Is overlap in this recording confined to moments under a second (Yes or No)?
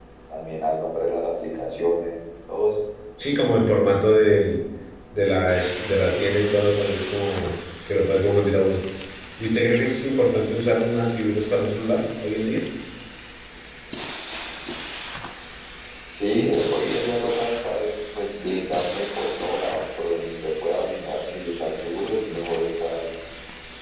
Yes